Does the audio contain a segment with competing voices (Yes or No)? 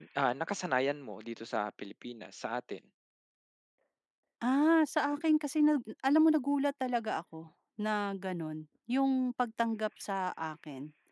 No